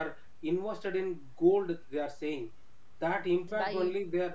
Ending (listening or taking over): listening